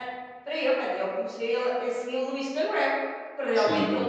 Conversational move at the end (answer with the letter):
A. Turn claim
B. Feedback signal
B